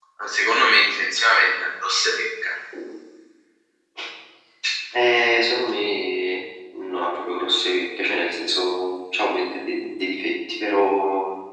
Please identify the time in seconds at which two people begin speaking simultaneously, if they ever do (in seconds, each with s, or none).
none